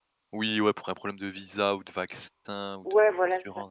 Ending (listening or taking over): taking over